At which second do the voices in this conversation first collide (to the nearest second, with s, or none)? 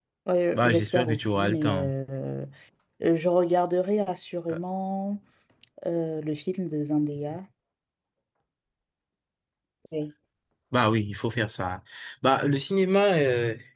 1 s